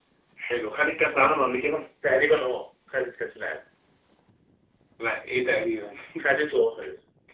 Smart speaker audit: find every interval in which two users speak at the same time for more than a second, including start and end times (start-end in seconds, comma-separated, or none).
none